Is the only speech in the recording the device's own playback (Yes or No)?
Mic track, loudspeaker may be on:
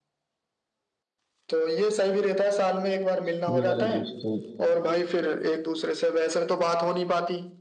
No